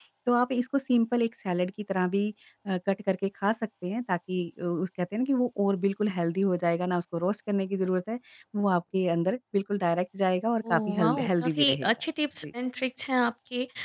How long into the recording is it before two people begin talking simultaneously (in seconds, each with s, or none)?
10.6 s